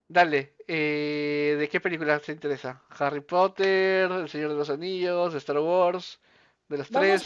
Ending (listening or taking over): taking over